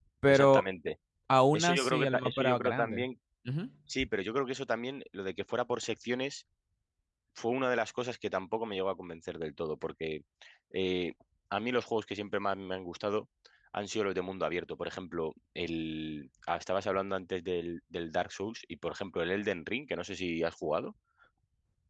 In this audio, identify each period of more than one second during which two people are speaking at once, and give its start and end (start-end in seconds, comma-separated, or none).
1.5-3.0